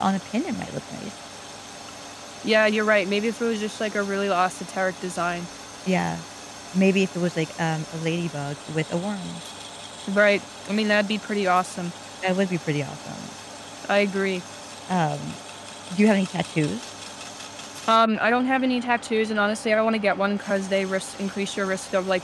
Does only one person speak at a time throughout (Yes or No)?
Yes